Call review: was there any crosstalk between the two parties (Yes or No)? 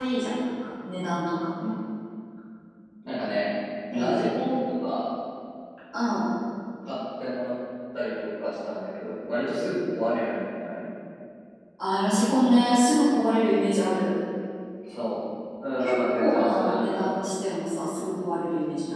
Yes